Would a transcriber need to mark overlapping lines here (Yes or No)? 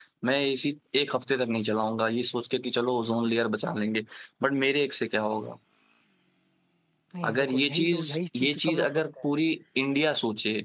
Yes